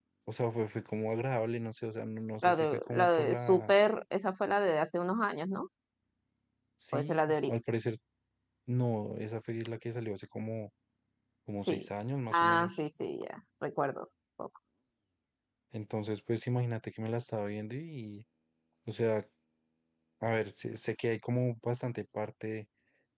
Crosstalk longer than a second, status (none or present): present